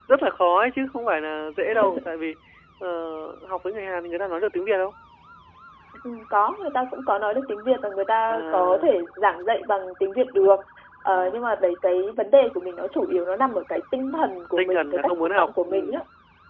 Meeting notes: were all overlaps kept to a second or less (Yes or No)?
No